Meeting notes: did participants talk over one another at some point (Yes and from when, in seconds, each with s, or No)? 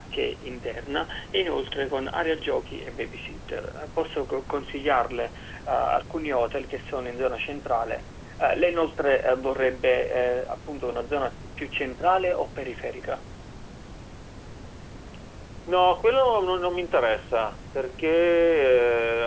No